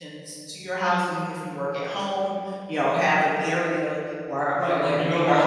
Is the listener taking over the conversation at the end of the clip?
Yes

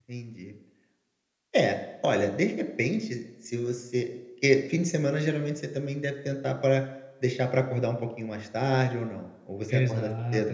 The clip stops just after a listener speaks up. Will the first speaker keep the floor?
No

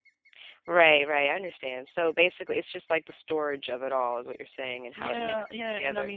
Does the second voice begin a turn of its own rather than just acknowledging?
Yes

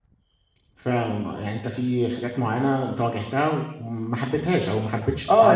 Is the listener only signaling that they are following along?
No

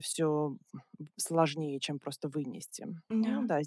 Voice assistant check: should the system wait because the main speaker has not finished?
Yes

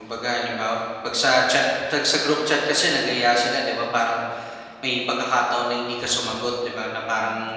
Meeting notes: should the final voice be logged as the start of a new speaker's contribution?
No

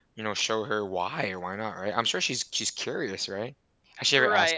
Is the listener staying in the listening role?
No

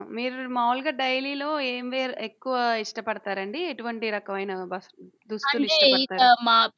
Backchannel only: No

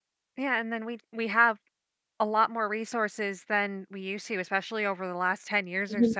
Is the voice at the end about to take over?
No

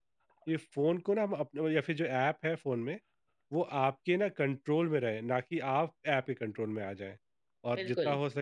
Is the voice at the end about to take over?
No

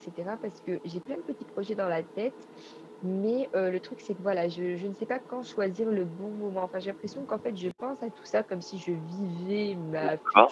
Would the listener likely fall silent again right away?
Yes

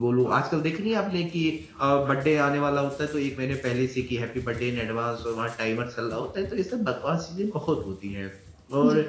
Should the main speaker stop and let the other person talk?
No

